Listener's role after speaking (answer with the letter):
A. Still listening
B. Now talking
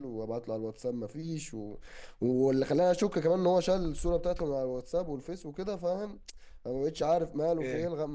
A